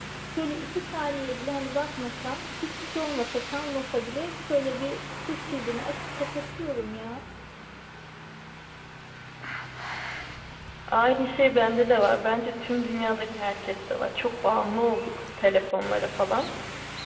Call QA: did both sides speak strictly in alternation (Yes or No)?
Yes